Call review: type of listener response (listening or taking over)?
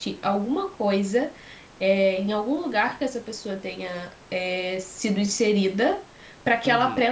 listening